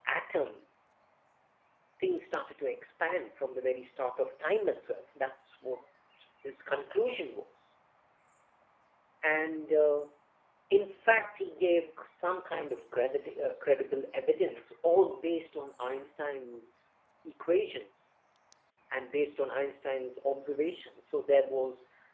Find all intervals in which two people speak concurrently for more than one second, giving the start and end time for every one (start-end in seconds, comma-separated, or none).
none